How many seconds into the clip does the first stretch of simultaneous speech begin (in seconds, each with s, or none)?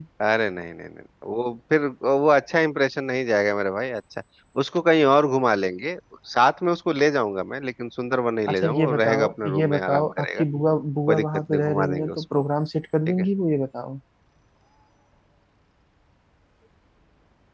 8.5 s